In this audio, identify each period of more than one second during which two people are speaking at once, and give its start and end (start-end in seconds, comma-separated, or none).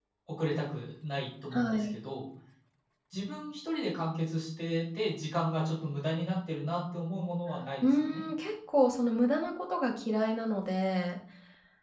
none